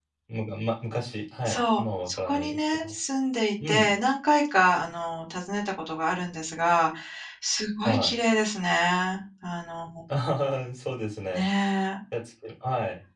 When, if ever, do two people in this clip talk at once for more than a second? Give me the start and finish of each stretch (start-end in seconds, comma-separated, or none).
1.4-2.9